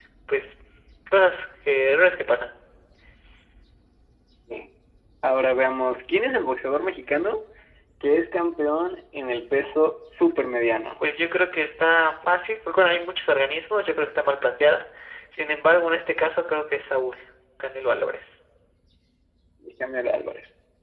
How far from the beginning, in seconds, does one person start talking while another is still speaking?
none

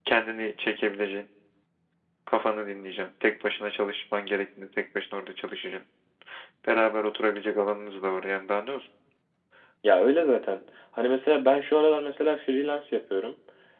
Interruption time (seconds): none

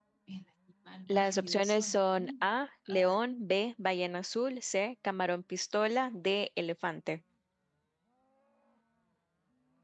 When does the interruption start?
1.1 s

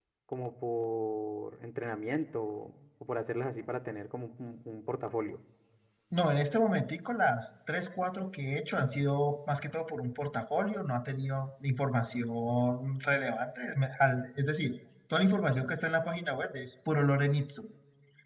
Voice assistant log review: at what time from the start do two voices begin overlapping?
none

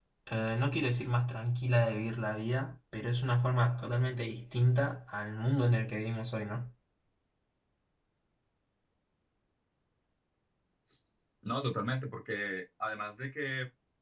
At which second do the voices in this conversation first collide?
none

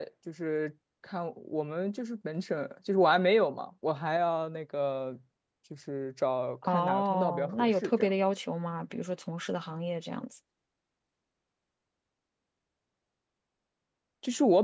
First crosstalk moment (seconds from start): 6.6 s

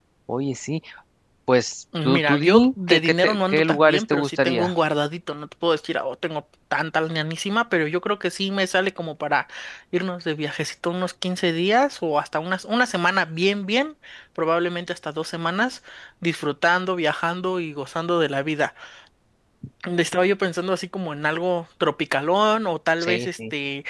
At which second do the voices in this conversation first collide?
2.0 s

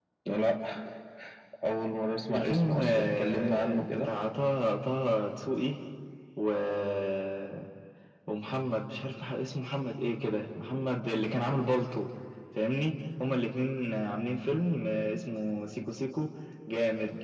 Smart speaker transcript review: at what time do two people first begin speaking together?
2.3 s

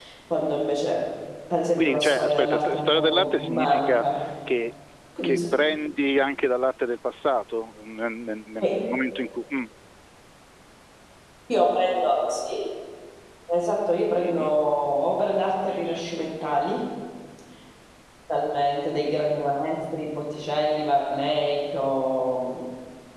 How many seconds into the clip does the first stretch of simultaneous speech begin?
1.8 s

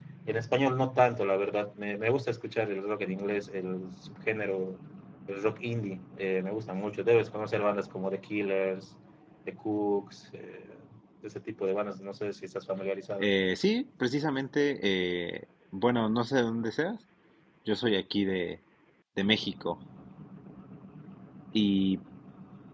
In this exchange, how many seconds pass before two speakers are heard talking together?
none

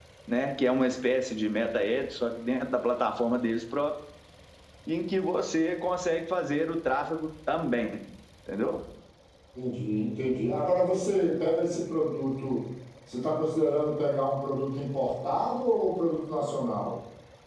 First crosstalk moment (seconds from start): none

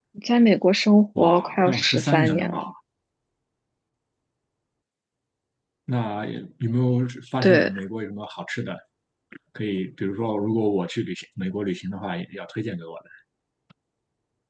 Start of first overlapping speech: 1.2 s

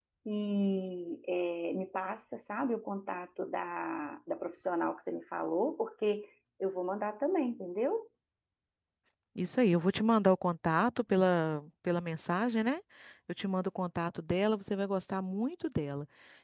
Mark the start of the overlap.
none

